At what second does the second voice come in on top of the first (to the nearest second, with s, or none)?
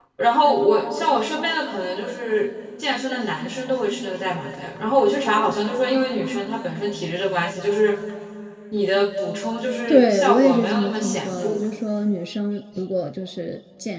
10 s